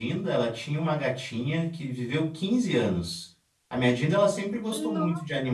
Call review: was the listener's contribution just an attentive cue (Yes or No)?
Yes